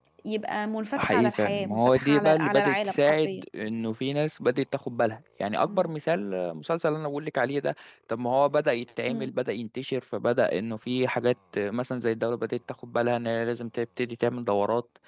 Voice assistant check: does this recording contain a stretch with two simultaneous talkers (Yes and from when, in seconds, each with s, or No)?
Yes, from 1.0 s